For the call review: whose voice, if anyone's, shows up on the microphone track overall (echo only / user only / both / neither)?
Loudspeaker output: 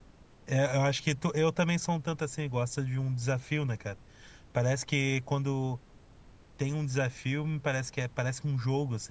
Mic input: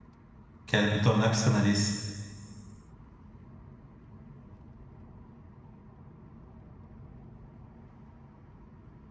user only